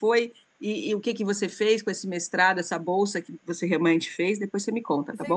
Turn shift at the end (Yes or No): Yes